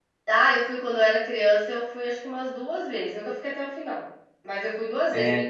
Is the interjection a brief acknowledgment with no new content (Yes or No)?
Yes